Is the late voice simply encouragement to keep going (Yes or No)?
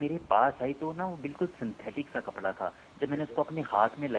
Yes